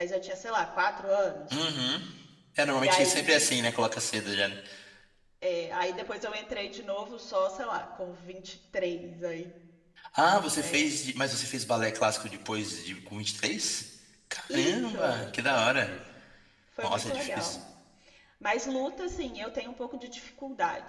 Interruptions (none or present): present